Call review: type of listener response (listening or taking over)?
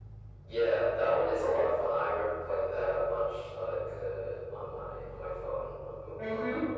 taking over